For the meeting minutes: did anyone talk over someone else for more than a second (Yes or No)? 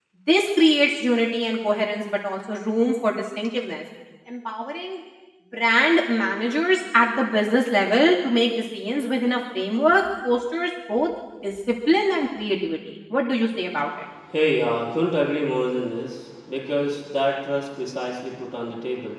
No